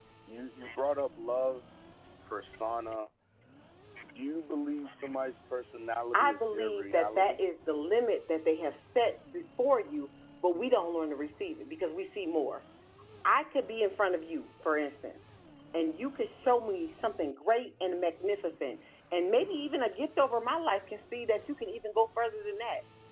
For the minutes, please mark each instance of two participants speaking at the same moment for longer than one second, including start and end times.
6.1-7.4

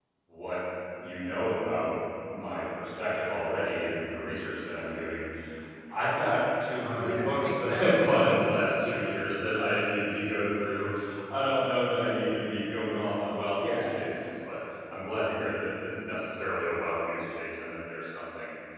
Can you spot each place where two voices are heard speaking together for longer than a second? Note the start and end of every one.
7.0-8.2

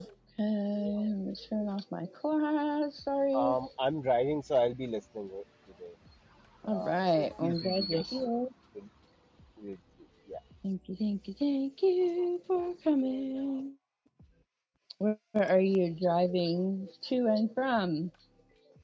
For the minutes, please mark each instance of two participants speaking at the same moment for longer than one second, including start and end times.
6.7-8.2

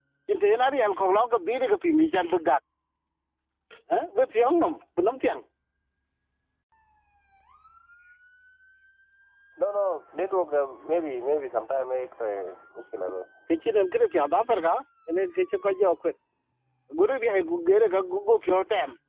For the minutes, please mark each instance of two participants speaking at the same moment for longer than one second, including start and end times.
none

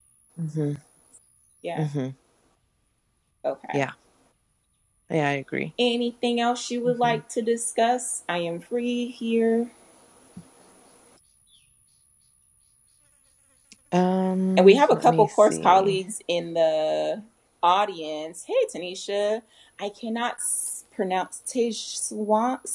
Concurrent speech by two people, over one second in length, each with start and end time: 14.6-16.0

